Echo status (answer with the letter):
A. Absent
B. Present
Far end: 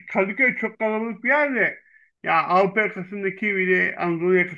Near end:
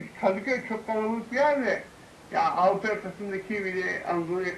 B